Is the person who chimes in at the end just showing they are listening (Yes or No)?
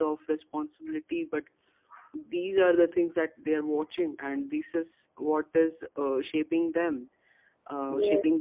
Yes